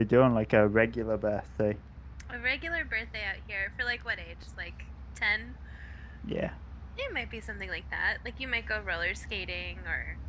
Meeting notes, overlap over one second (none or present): none